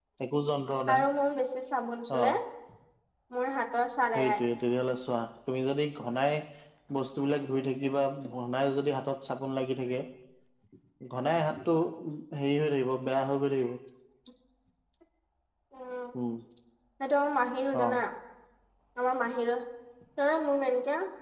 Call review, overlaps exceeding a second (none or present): none